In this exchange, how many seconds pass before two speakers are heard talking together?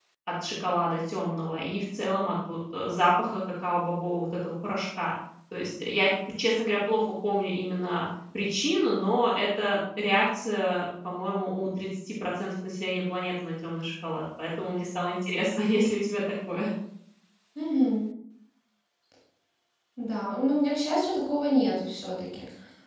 none

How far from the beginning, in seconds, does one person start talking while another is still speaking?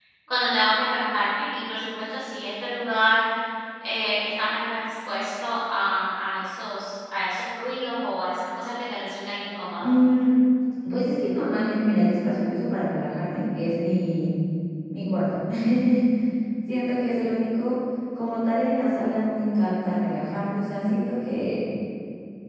none

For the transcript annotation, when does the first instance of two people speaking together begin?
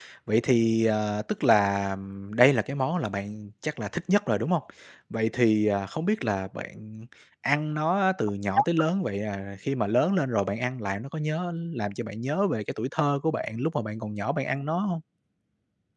none

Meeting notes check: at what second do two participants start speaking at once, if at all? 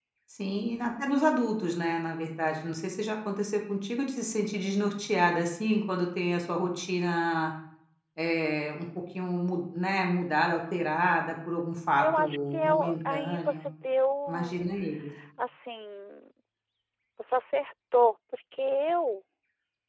12.0 s

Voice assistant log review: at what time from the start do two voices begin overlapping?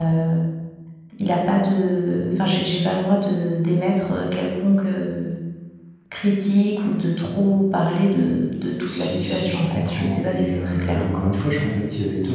8.8 s

